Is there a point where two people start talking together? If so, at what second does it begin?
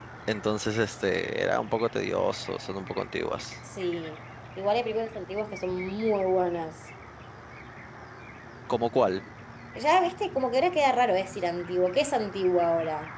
none

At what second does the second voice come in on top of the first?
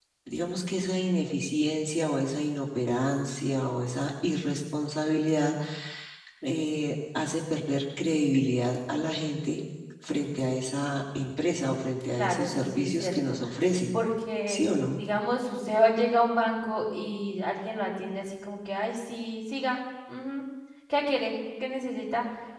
12.1 s

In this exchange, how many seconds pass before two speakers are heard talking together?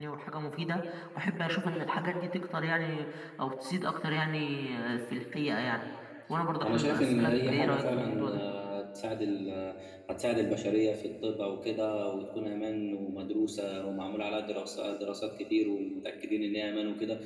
6.6 s

